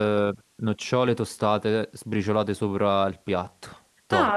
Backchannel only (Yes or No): No